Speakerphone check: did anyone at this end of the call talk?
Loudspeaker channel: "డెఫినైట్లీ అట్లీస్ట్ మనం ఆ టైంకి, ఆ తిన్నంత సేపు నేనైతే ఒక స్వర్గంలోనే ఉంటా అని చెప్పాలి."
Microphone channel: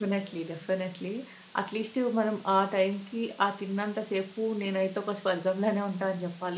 No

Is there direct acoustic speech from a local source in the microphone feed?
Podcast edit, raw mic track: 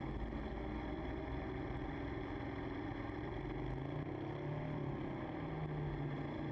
No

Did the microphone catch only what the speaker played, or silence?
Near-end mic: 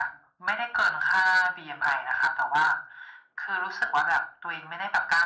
Yes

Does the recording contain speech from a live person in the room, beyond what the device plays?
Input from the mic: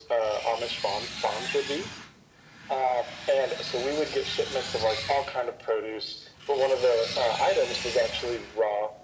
No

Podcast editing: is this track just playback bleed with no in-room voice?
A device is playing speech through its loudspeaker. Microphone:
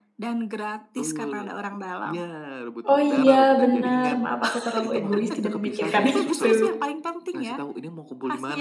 No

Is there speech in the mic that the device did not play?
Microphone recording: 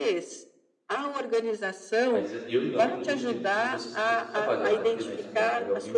Yes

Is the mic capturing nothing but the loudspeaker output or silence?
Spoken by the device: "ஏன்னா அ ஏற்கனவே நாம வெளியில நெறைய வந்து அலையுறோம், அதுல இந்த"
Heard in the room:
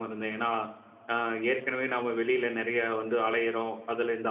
Yes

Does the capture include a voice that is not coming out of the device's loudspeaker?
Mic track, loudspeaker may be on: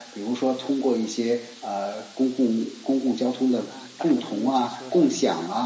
Yes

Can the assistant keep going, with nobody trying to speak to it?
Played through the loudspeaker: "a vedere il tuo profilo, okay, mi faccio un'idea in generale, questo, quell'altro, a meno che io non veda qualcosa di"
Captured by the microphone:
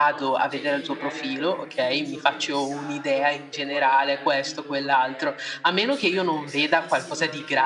No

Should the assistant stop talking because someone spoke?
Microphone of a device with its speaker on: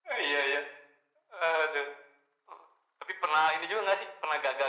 No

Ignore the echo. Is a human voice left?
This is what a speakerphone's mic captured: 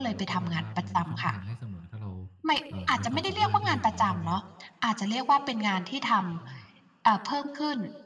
Yes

